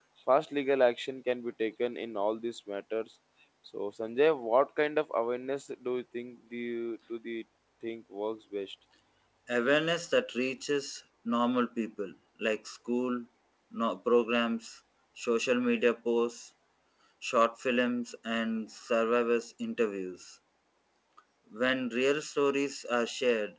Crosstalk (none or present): none